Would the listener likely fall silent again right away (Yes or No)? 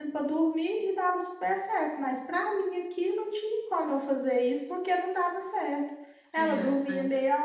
Yes